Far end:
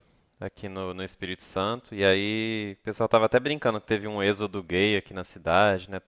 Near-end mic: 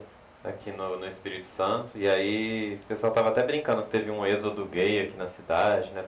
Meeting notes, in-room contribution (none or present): none